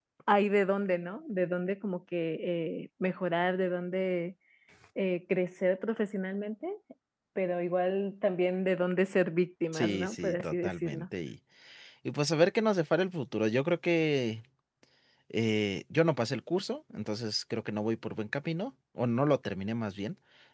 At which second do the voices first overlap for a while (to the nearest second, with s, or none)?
10 s